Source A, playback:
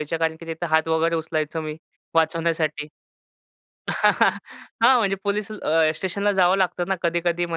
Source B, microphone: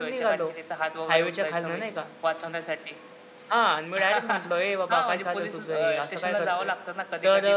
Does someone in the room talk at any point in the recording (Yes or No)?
Yes